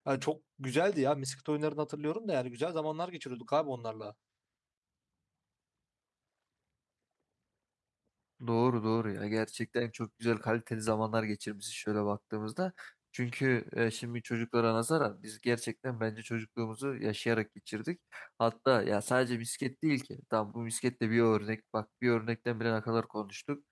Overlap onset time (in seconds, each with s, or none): none